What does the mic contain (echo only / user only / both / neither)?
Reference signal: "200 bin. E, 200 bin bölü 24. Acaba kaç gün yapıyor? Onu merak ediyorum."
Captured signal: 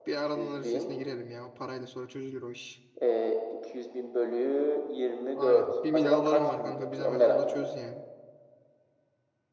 both